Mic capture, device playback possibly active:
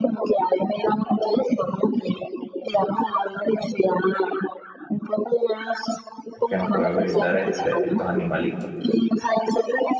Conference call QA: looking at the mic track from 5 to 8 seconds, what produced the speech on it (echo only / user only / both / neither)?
both